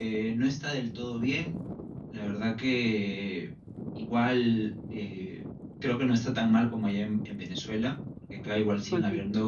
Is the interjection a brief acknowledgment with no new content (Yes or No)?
Yes